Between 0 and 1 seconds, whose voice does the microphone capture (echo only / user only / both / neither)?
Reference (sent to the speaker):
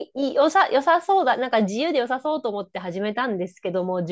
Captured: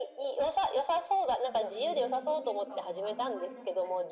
echo only